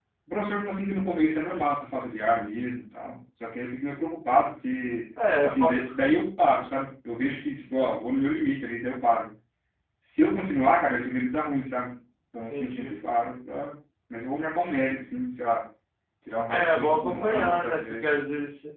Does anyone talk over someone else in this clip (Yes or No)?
Yes